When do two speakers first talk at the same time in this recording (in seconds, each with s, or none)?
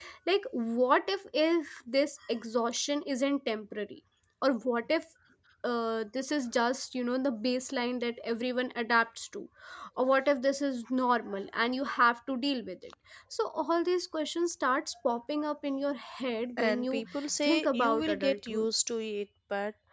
16.6 s